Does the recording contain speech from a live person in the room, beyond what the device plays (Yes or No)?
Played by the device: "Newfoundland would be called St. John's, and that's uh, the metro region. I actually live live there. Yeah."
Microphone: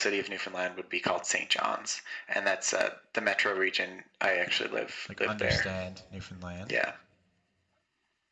Yes